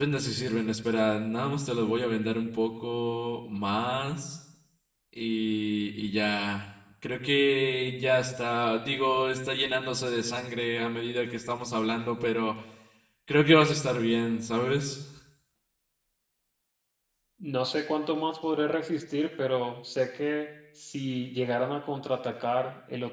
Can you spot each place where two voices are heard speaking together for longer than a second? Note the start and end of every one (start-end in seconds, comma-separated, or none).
none